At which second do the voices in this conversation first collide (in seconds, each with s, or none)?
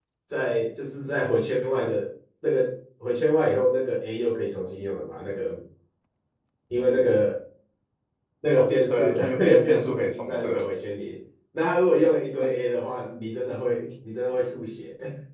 8.6 s